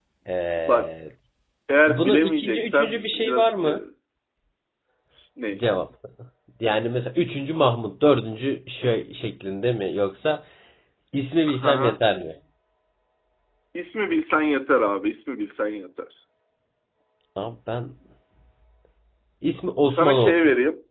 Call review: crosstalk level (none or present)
present